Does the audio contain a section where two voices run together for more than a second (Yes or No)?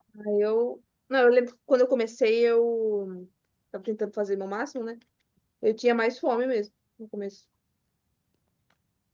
No